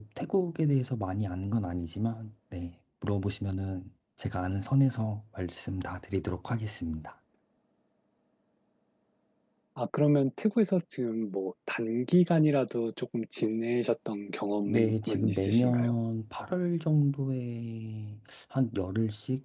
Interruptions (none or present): present